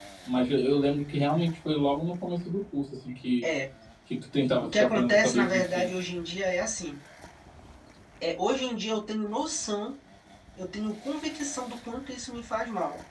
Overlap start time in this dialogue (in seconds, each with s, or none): 4.6 s